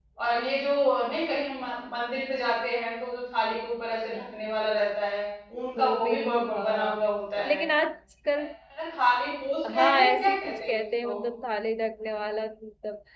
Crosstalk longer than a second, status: present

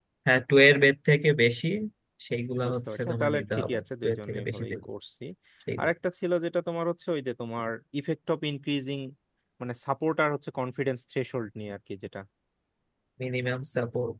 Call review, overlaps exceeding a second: present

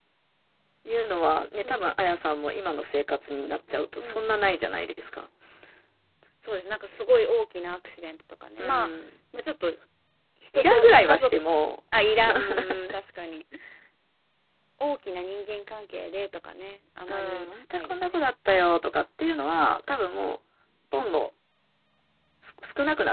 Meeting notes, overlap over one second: present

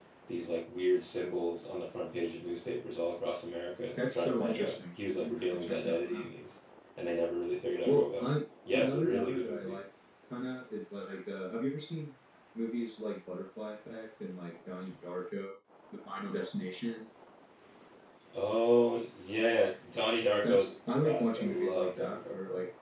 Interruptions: present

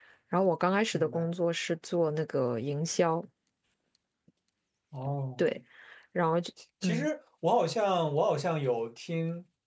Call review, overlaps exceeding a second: none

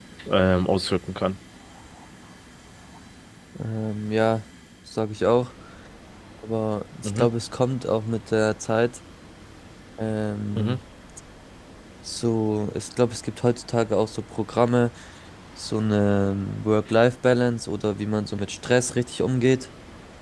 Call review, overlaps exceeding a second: none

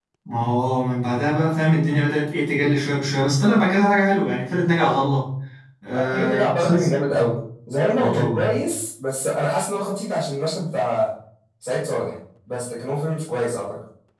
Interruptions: present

